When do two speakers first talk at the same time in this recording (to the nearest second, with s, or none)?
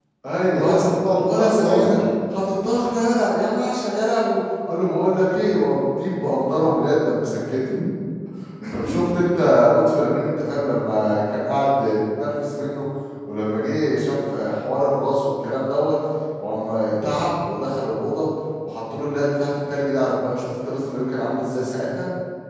1 s